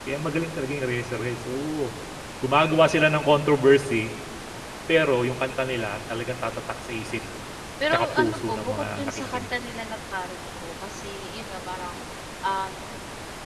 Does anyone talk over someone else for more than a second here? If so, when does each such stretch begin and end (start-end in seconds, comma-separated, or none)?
7.9-9.5